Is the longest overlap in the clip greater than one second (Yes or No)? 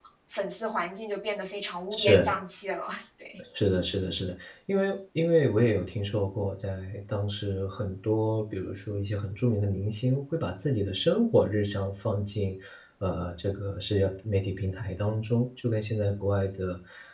No